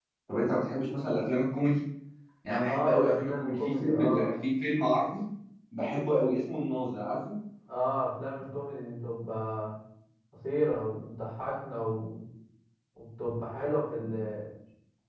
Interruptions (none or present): present